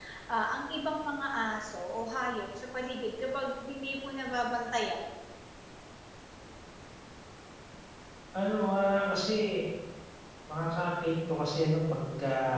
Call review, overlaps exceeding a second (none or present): none